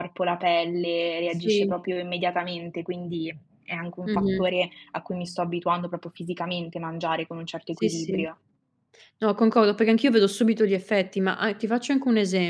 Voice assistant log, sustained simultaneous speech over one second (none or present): none